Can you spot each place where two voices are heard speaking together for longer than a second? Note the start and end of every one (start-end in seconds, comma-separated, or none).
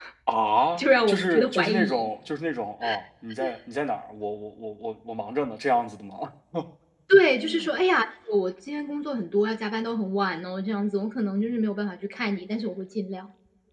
0.8-2.1